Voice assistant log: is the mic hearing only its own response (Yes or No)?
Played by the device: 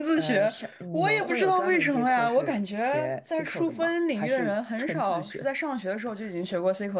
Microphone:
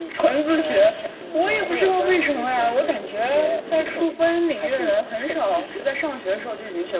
Yes